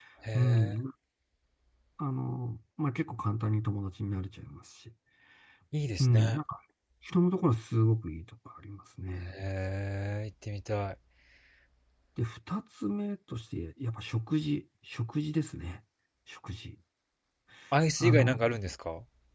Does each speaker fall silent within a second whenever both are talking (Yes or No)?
Yes